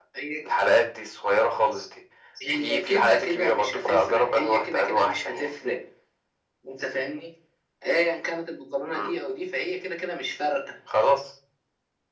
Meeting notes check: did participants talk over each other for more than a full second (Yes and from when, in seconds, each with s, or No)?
Yes, from 2.5 s